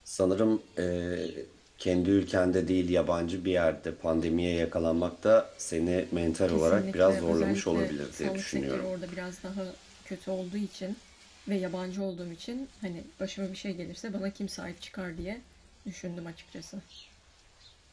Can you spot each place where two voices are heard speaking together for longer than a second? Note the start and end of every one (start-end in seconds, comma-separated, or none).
6.5-8.9